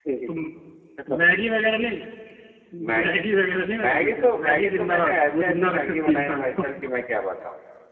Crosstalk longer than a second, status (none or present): present